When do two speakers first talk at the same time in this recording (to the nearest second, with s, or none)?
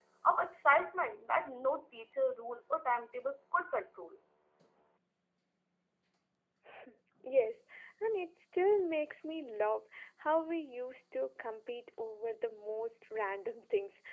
none